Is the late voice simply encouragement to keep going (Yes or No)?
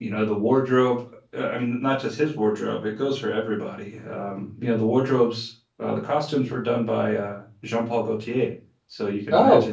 Yes